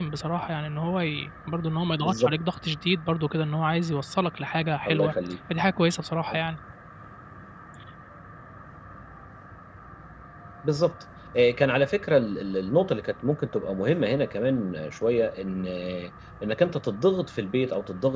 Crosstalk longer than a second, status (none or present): none